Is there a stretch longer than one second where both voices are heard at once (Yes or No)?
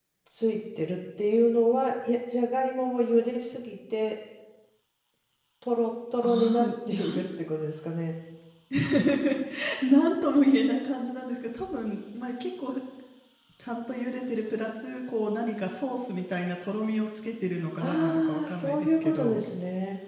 Yes